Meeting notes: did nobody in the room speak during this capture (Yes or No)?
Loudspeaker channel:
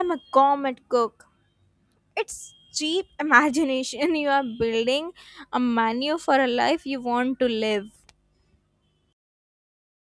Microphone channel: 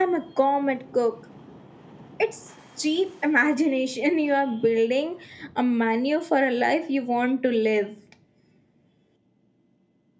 Yes